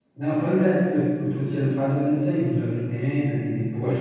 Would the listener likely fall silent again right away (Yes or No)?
No